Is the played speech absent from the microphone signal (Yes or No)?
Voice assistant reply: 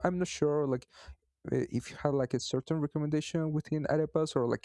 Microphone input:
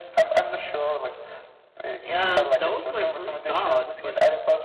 No